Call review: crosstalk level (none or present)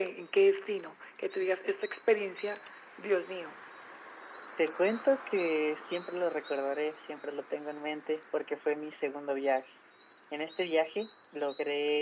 none